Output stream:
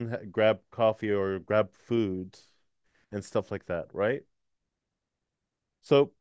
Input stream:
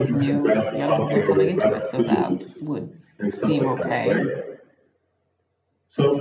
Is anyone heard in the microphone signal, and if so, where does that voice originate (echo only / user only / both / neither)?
both